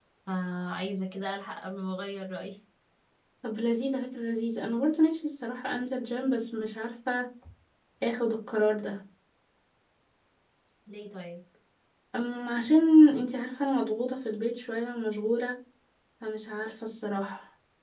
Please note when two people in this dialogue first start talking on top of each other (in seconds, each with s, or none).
none